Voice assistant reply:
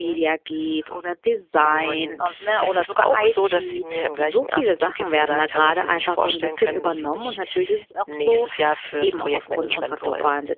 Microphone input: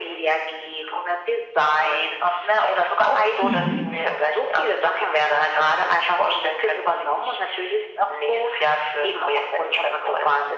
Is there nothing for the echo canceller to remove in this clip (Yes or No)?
No